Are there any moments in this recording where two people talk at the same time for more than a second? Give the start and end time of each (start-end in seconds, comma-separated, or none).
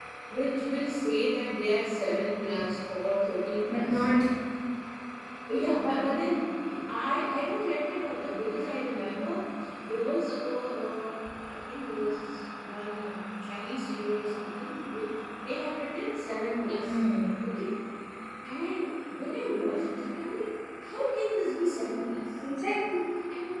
none